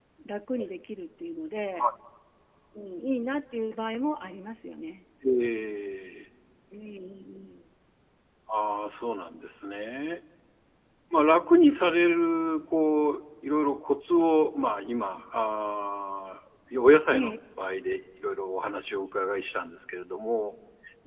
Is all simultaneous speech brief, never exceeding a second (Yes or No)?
Yes